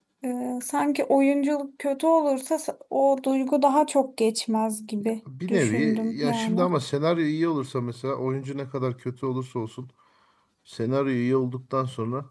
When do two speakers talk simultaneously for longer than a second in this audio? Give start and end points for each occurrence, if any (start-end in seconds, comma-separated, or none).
5.5-6.7